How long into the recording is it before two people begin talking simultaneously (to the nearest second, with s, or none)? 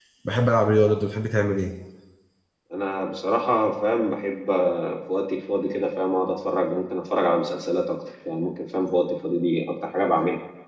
none